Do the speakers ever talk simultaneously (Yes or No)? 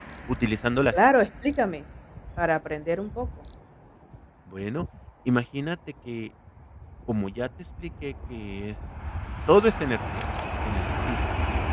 No